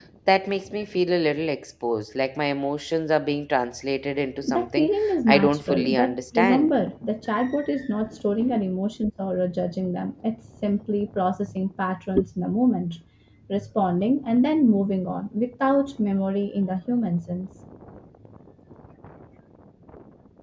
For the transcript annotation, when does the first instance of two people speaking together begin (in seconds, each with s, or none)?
4.4 s